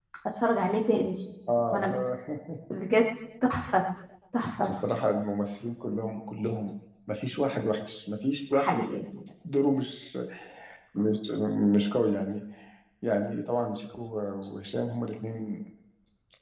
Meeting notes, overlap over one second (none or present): none